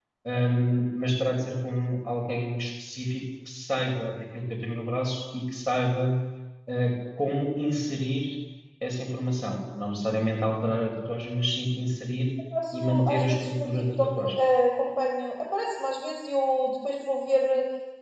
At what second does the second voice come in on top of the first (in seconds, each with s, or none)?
12.7 s